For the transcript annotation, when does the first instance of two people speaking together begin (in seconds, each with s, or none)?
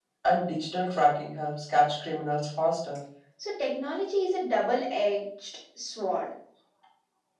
none